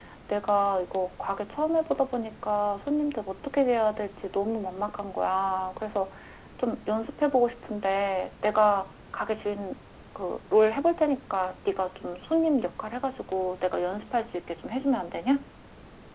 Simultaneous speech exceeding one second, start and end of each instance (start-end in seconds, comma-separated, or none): none